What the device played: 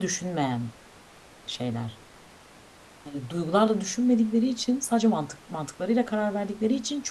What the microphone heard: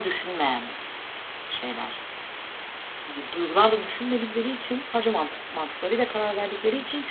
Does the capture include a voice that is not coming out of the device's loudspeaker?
No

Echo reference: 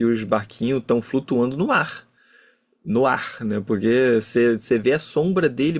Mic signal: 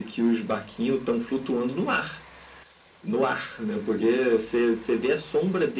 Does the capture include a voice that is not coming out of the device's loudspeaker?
No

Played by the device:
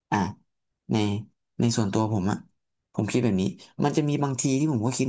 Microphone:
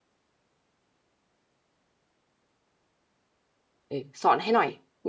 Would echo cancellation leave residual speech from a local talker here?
Yes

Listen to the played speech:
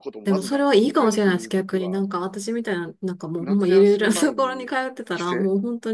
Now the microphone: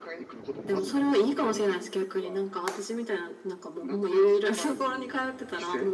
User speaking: No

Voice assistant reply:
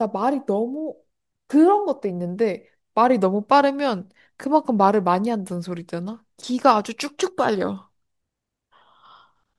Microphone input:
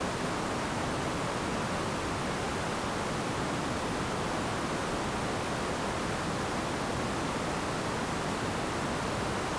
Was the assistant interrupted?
No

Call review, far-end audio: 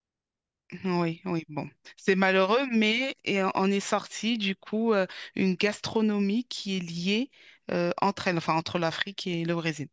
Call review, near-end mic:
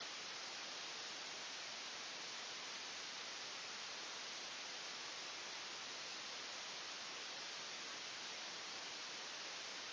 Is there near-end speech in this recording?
No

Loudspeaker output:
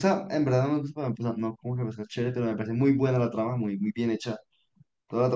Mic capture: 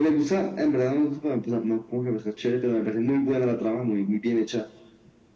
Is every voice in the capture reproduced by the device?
Yes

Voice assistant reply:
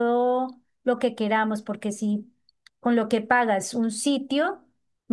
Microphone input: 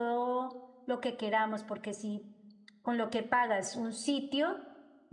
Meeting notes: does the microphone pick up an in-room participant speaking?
No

